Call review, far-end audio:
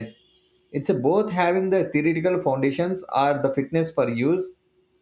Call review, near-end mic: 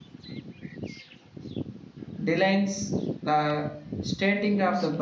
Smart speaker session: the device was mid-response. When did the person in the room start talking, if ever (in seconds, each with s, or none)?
2.2 s